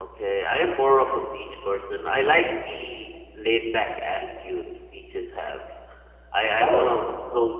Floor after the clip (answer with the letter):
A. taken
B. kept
B